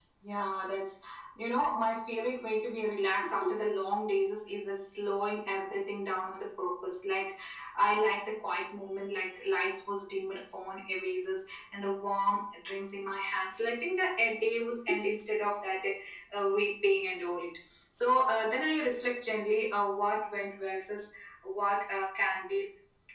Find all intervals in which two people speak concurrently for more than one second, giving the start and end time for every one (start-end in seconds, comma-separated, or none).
none